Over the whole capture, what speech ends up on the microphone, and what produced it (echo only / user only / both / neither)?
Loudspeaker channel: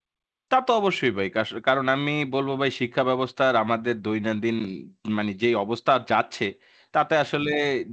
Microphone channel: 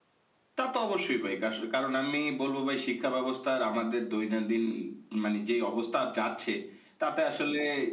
echo only